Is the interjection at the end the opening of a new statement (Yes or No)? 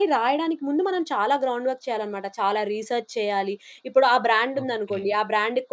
No